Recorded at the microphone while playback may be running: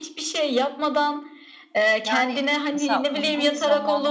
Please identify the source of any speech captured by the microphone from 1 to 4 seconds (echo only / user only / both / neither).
both